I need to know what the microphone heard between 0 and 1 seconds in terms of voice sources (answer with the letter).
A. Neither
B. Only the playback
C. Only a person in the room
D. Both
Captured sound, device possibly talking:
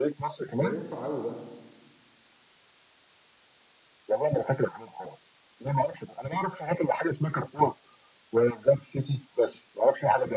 D